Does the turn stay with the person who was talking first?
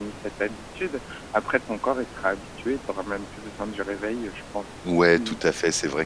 No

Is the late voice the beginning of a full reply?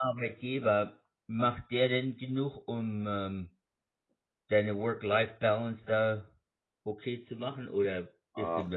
Yes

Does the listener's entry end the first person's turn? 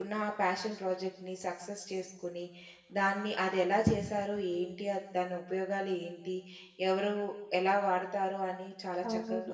No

